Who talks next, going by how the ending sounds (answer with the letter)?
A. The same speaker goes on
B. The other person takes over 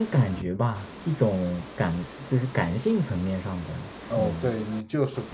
B